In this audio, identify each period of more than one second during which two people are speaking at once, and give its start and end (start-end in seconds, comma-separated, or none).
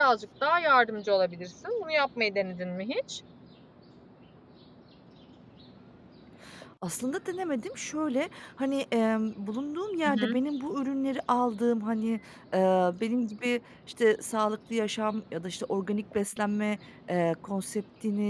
none